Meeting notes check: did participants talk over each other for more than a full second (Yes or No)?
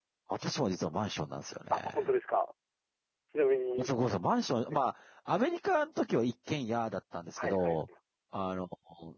No